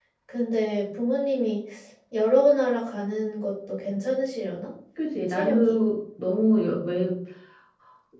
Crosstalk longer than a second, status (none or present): none